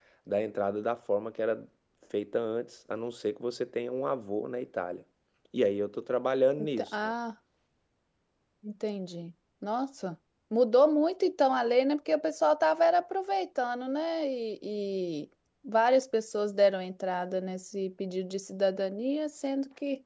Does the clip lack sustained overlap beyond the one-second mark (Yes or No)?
Yes